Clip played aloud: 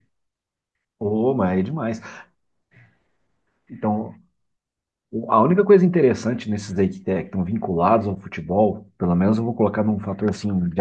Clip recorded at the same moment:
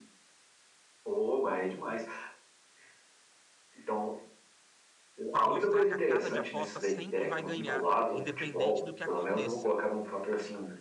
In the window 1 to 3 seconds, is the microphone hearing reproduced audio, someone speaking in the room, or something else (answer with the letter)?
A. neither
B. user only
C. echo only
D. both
C